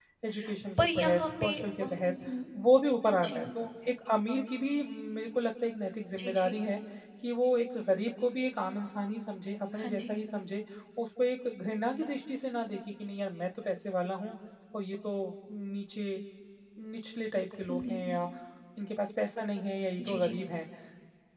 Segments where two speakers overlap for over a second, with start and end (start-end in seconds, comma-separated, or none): 0.8-2.1